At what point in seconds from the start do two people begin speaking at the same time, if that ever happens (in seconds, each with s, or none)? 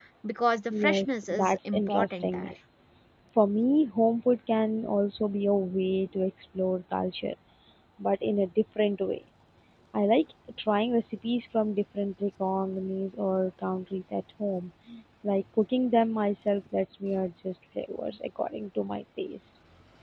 0.7 s